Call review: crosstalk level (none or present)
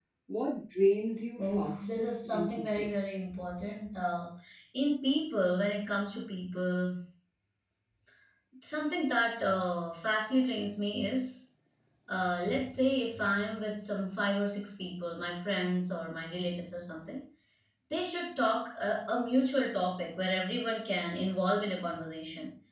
present